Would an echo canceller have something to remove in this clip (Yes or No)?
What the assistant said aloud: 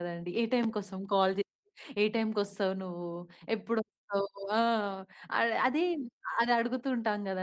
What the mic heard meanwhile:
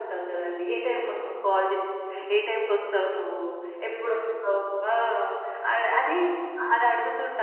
Yes